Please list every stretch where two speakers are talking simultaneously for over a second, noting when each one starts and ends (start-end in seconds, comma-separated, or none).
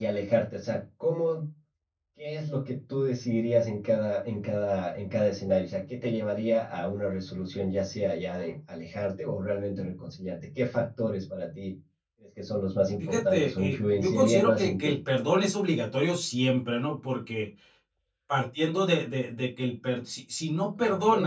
13.0-15.0